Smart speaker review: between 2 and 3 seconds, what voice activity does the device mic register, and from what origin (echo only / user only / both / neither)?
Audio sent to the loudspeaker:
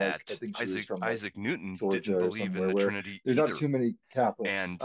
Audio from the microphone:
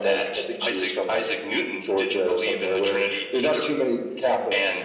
echo only